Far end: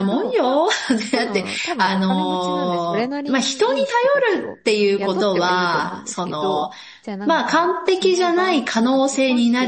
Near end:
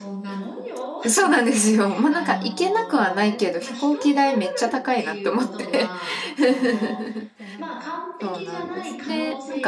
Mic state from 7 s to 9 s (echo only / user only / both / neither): both